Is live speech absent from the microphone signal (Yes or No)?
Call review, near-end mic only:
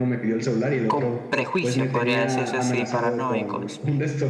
No